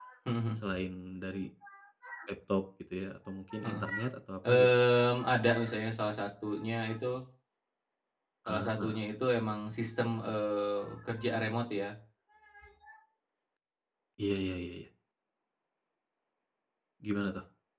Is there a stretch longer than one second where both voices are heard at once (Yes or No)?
No